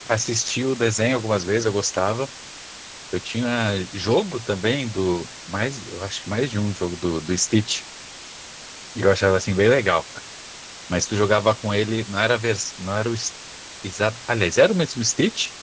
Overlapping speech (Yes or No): No